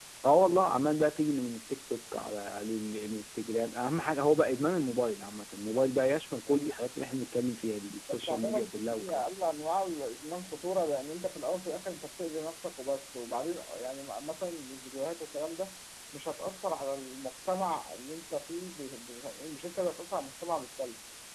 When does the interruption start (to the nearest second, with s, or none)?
8 s